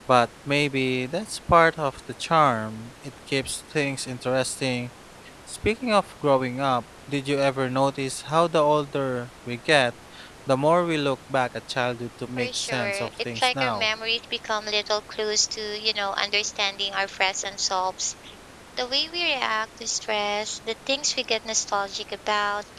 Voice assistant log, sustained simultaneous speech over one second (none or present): present